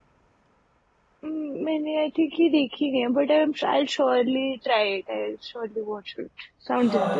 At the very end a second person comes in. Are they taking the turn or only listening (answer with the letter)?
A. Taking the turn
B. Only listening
A